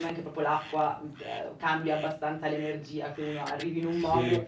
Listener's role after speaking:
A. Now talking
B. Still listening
A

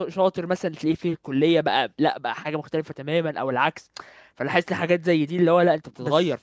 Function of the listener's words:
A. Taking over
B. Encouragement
A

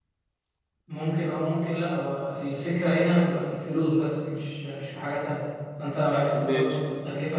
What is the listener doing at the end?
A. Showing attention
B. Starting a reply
A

